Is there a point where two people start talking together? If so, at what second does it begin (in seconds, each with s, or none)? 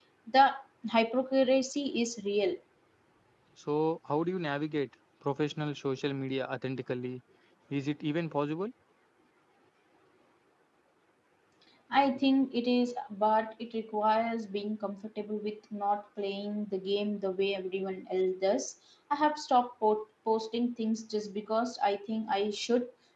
none